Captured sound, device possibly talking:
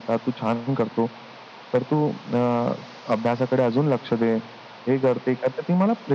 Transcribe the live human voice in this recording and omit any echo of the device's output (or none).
none